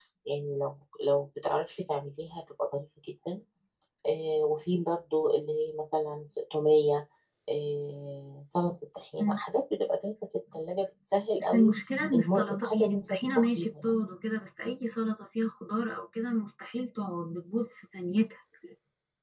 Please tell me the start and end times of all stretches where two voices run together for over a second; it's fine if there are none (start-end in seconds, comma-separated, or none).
12.1-13.9